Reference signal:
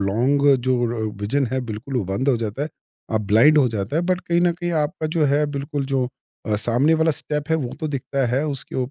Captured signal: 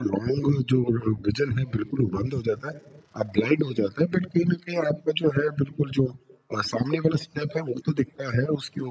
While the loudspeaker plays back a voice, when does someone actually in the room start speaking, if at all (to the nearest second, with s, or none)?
none